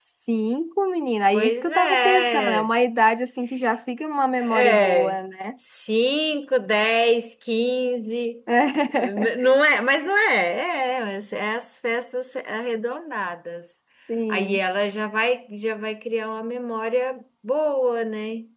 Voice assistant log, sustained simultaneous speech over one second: present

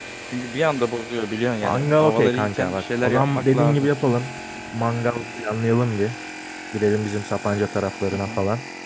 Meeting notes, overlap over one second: present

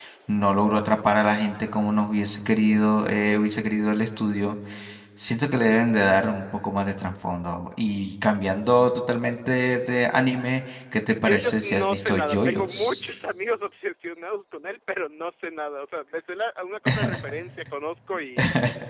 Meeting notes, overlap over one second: present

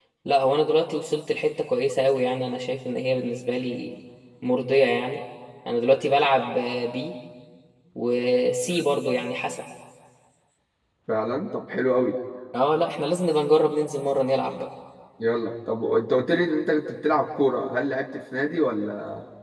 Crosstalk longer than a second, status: none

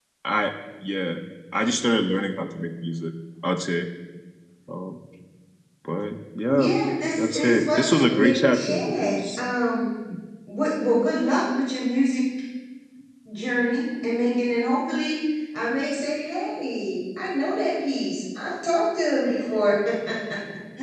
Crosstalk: present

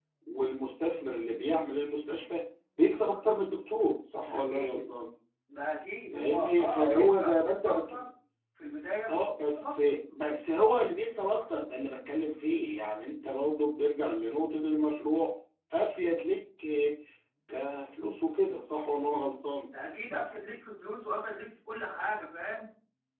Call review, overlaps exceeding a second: present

